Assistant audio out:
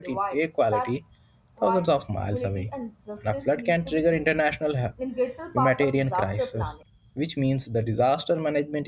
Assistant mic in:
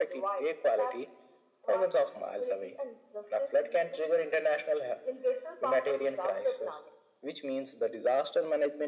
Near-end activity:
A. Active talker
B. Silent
B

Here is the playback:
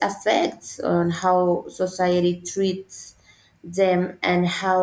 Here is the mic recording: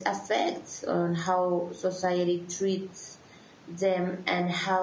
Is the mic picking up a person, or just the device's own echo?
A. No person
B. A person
A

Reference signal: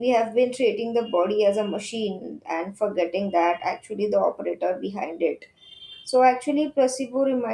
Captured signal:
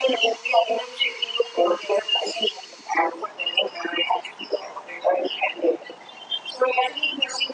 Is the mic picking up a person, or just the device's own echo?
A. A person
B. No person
B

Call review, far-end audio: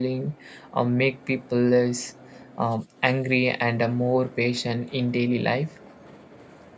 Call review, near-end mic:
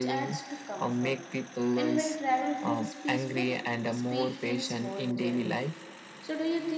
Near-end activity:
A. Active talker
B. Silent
A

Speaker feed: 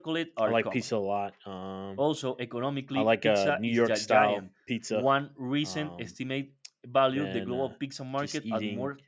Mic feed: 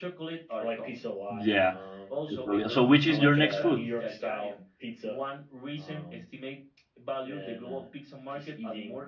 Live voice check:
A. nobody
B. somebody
B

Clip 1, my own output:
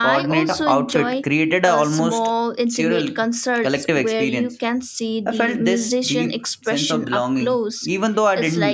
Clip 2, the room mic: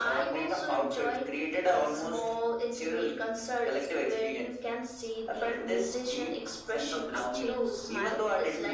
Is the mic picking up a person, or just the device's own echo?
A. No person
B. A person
B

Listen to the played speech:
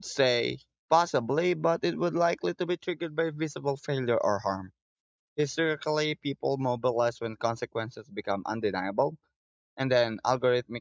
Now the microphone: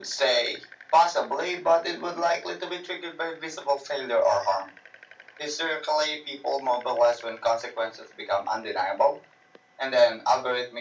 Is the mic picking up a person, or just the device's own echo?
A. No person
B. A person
A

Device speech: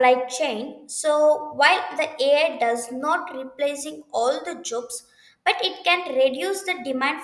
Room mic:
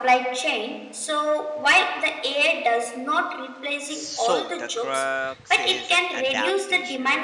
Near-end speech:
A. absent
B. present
B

